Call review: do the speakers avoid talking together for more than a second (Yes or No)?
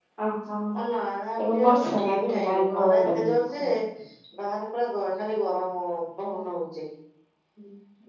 No